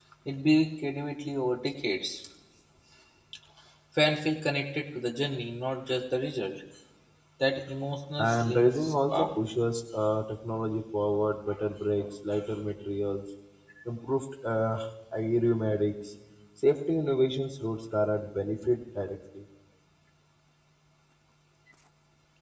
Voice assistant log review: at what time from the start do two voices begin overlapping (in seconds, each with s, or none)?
8.2 s